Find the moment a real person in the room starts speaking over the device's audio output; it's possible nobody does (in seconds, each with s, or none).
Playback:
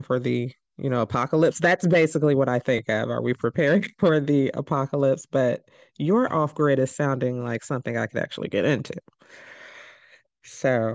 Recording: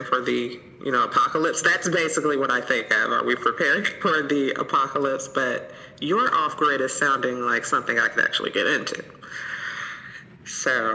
none